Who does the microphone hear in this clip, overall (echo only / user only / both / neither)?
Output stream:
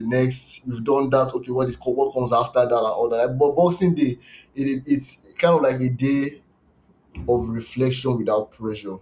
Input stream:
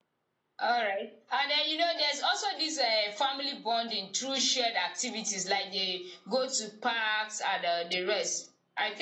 user only